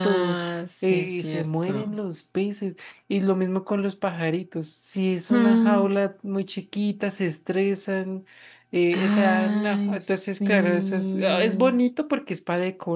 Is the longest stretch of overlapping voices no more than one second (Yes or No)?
No